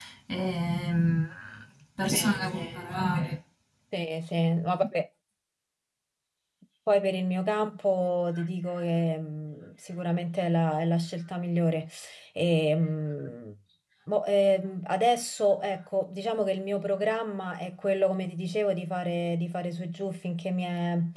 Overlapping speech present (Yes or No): No